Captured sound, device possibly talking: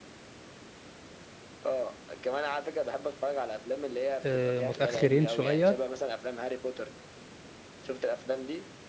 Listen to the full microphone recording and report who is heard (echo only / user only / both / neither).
both